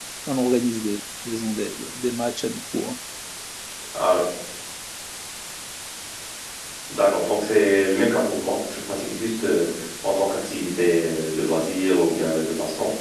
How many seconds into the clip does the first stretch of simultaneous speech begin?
none

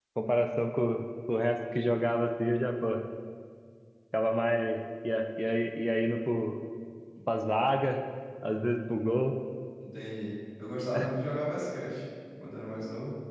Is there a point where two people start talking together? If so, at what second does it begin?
none

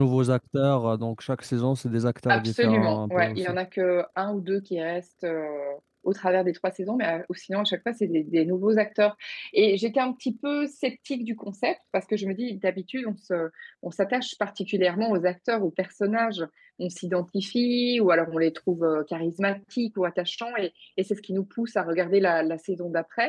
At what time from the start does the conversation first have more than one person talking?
2.3 s

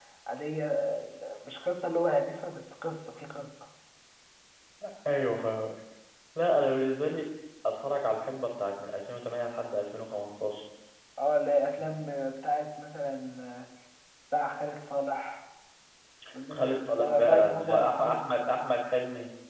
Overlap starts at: 16.5 s

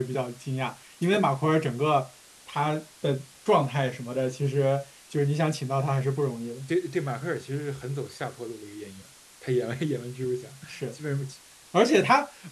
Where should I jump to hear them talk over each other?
none

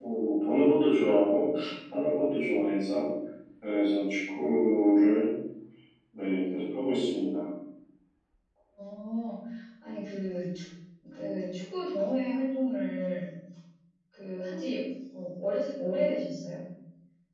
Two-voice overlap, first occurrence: none

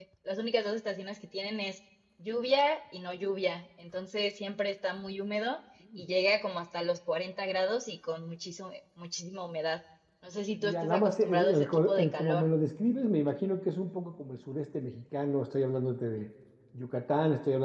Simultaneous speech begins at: 10.6 s

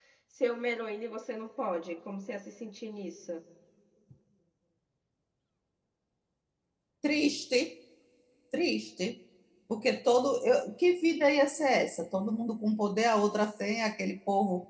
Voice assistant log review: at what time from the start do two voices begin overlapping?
none

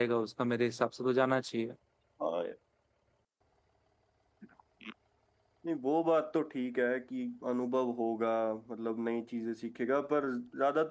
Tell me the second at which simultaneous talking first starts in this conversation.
none

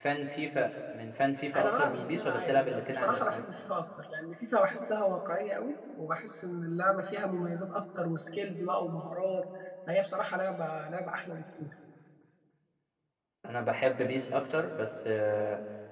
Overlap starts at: 1.5 s

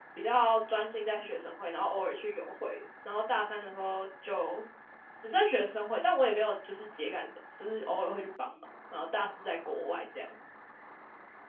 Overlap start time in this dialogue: none

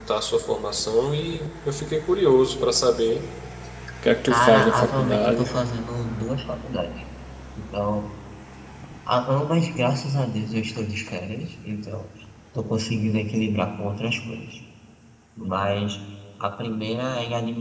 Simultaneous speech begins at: 4.3 s

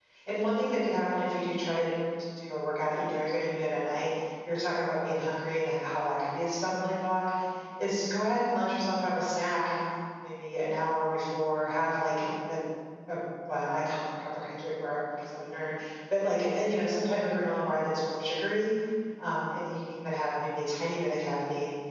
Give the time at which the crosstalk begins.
none

